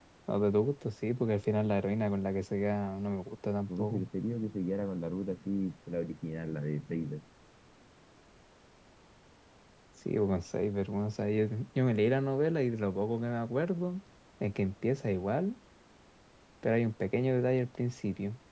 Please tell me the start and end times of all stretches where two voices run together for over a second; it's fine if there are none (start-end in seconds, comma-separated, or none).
none